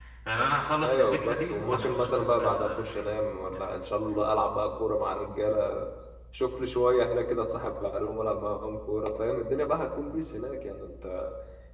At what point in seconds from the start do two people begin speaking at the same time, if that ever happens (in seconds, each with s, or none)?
0.8 s